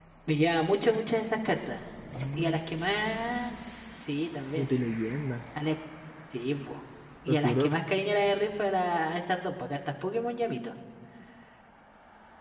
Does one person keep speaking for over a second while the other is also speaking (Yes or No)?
No